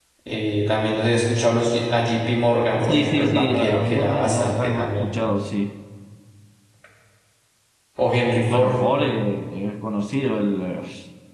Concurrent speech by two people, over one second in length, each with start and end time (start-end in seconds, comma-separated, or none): 2.9-5.1